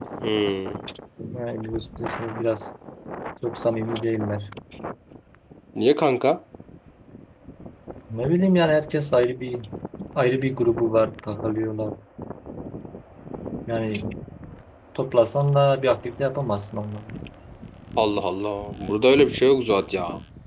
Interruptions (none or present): none